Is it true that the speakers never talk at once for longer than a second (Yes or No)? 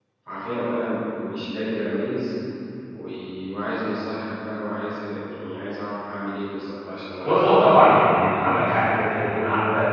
No